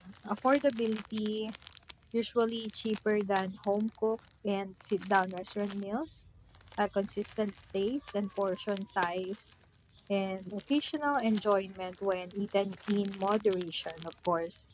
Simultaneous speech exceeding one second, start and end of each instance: none

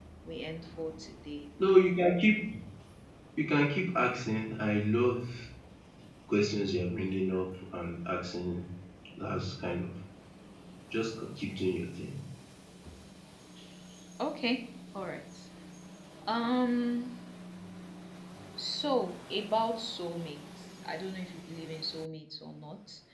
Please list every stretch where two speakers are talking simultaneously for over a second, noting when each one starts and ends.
none

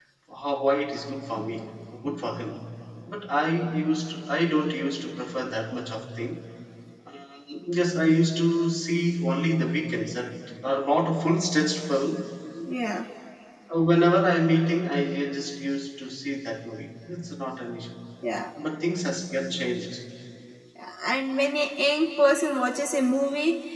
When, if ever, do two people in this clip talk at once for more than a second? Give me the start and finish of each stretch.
none

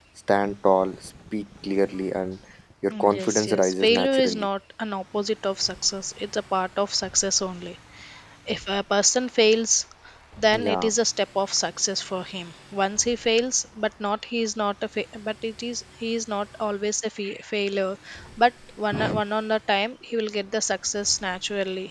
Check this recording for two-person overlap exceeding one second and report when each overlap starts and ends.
2.9-4.5

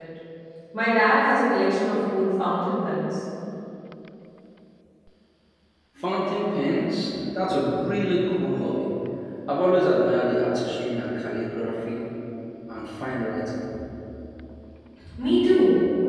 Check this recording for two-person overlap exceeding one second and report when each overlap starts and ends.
none

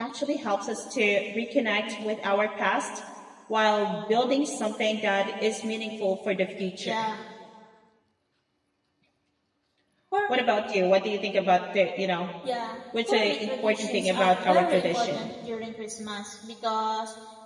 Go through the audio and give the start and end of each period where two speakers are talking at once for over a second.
13.1-15.3

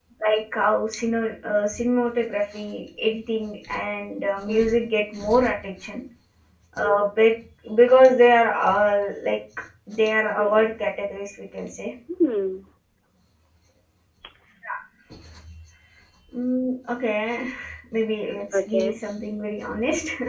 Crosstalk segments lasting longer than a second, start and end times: none

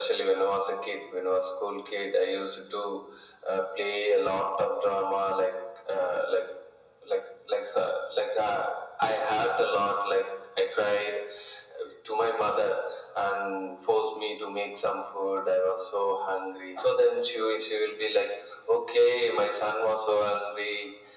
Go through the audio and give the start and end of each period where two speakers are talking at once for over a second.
none

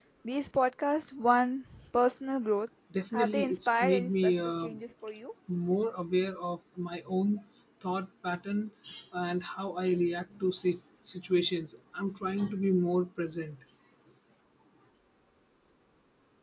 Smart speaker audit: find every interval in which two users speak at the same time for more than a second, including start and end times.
3.1-4.7

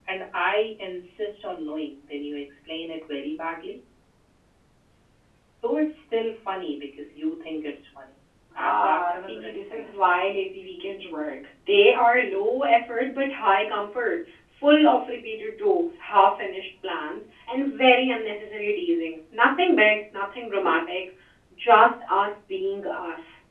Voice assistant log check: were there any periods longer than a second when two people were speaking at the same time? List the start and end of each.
8.6-9.8

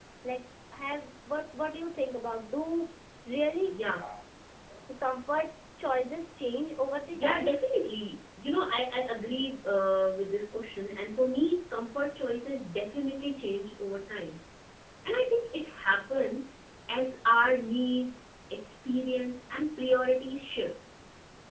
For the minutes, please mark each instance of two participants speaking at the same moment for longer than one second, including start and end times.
none

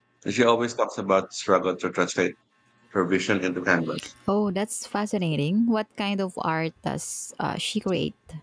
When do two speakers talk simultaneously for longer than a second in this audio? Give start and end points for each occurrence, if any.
none

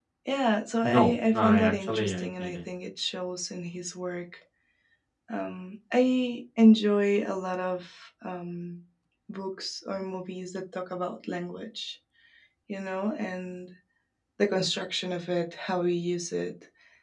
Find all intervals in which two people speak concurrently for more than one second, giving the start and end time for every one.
0.8-2.6

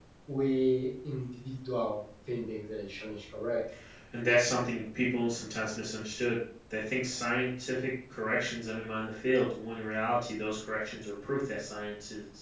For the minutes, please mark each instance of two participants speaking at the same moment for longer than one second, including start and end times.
none

